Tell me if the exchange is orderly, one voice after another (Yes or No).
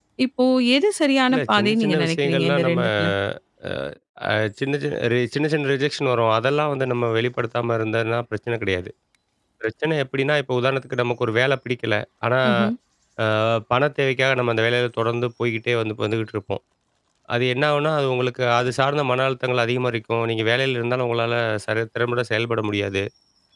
No